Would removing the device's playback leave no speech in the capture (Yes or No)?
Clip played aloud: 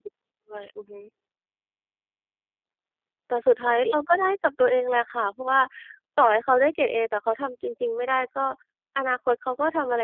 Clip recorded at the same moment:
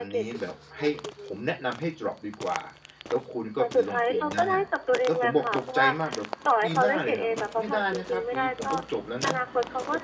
No